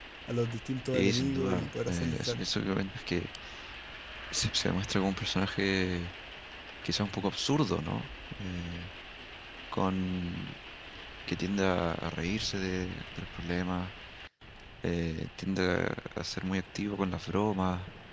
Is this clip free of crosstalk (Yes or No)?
No